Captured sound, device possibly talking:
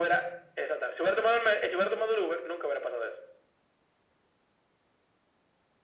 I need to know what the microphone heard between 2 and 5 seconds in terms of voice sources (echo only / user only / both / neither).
echo only